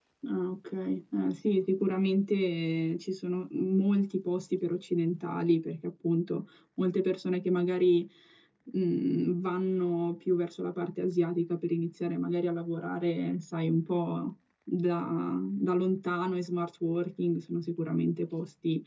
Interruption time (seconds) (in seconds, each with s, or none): none